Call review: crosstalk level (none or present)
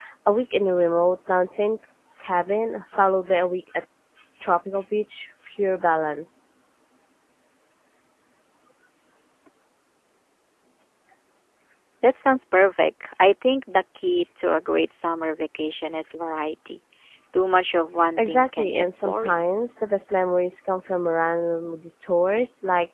present